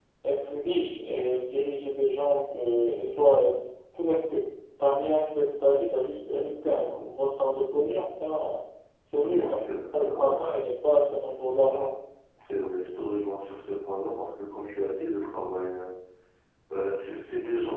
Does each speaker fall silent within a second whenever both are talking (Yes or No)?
Yes